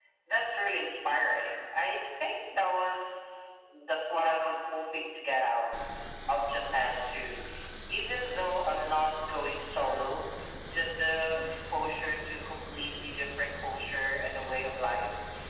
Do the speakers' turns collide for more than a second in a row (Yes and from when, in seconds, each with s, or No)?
No